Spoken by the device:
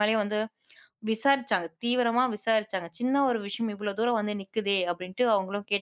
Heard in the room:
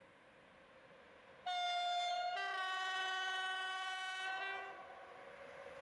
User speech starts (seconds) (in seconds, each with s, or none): none